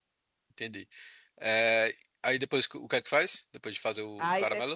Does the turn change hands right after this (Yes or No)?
Yes